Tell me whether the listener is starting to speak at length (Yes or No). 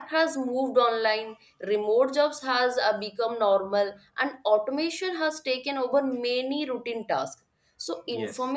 No